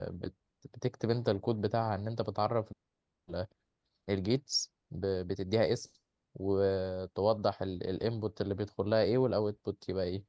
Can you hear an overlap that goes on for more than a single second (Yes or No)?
No